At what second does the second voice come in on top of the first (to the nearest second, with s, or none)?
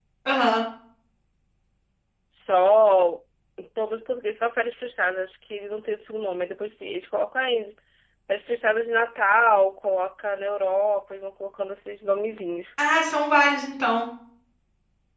none